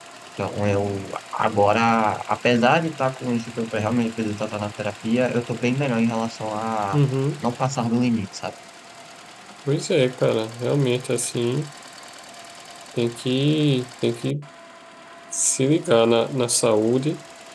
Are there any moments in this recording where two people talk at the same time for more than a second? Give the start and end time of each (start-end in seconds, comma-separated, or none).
none